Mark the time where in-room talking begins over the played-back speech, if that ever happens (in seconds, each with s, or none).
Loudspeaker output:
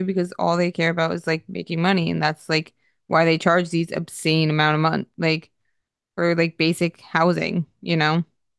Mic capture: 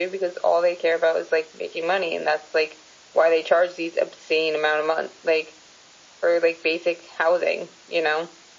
none